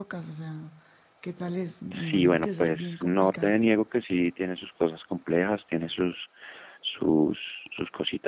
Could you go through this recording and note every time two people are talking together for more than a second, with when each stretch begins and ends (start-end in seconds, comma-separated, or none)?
1.9-3.5